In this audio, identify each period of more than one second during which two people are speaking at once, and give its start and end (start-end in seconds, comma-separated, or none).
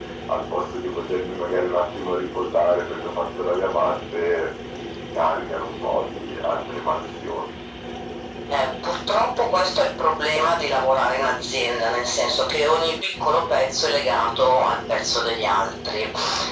none